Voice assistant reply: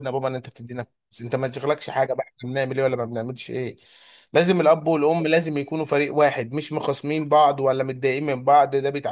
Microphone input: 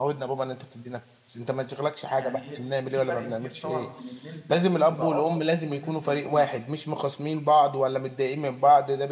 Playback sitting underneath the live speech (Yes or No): No